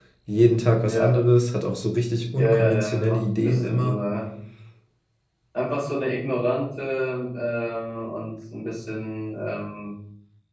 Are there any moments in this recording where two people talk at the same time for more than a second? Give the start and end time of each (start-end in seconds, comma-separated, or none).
2.4-4.0